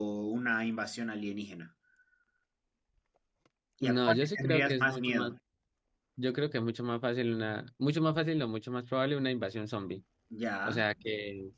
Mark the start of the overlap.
3.8 s

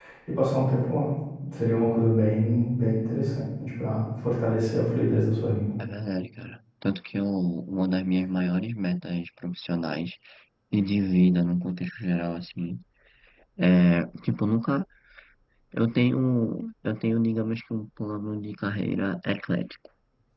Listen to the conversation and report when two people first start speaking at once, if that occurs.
none

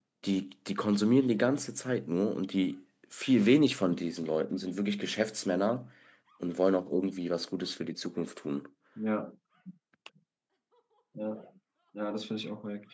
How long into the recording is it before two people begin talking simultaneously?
none

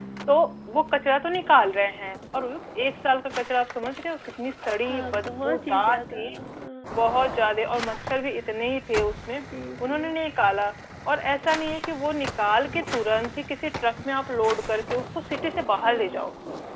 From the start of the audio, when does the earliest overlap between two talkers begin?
4.9 s

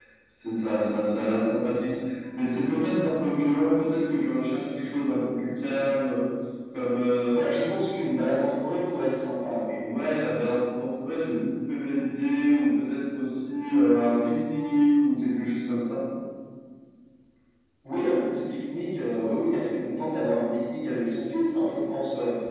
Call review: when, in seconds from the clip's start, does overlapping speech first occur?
none

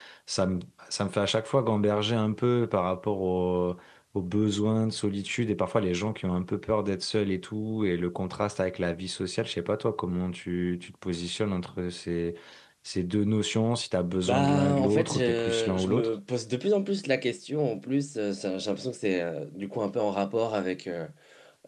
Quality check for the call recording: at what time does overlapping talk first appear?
14.2 s

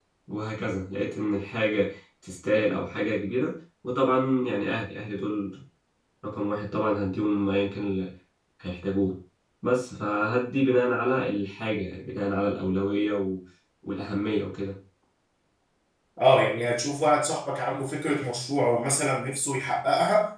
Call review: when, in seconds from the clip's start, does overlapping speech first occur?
none

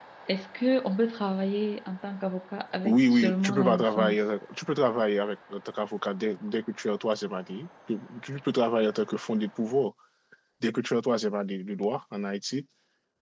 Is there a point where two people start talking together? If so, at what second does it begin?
2.8 s

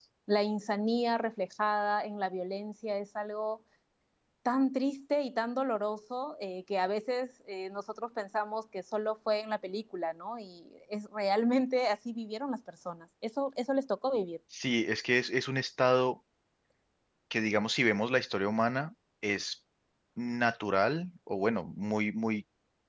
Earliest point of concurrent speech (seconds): none

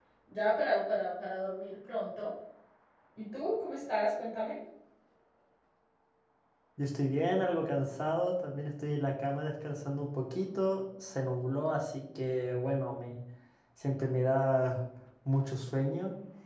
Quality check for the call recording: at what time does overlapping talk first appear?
none

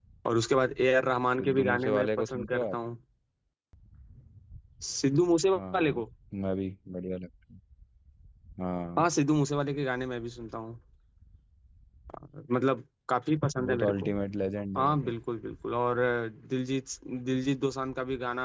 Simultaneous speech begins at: 1.4 s

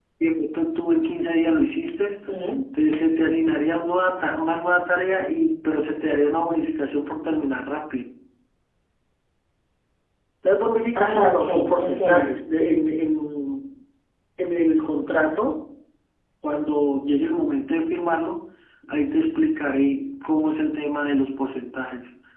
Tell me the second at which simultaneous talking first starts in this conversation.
10.9 s

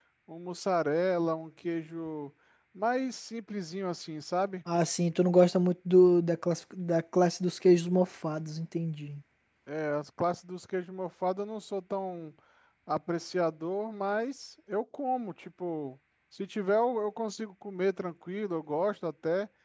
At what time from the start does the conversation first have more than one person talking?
none

